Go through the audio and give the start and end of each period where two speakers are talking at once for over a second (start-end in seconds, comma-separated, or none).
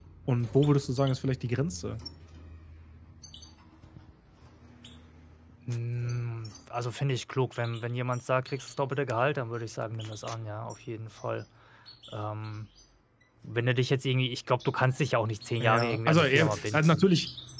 15.6-17.1